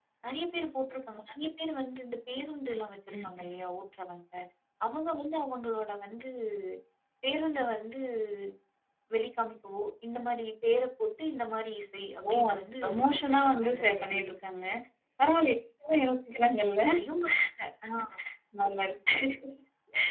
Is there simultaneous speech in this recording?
Yes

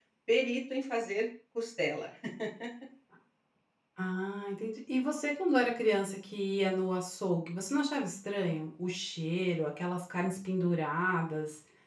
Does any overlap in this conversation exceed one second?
No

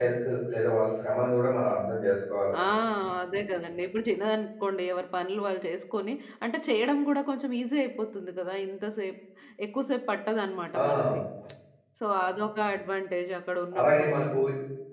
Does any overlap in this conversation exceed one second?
No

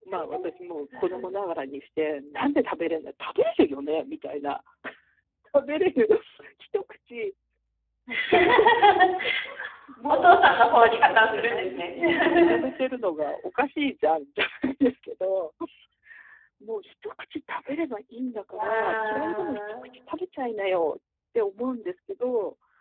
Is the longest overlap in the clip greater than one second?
Yes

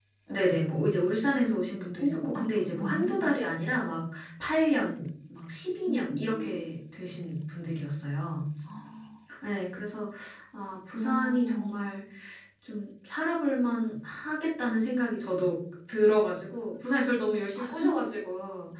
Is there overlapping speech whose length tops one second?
Yes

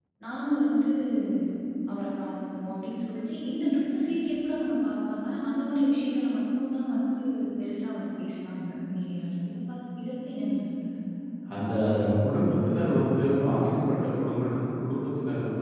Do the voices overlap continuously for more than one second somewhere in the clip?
No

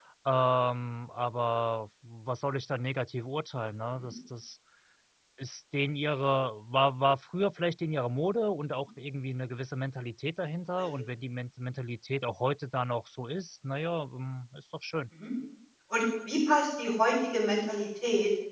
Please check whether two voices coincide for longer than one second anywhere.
No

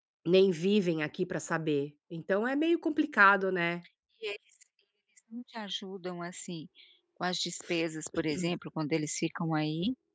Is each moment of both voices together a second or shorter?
Yes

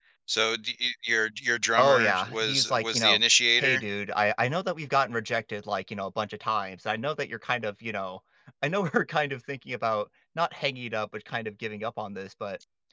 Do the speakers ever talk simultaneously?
Yes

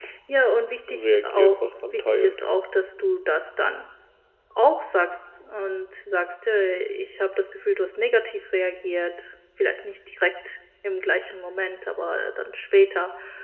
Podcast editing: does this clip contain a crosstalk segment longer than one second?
Yes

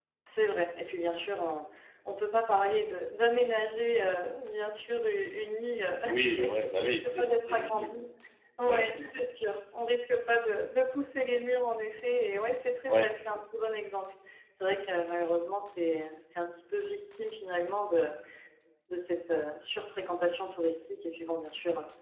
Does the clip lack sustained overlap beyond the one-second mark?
No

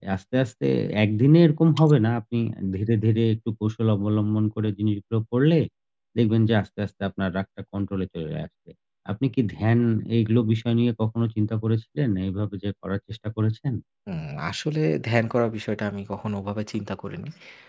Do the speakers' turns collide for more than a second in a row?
No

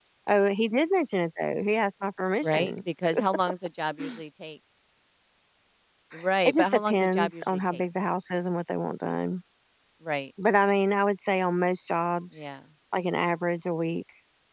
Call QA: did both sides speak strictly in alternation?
No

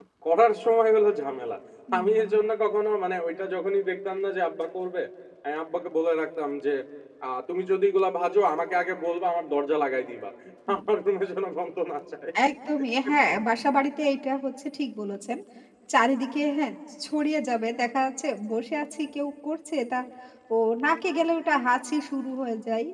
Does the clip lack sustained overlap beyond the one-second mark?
Yes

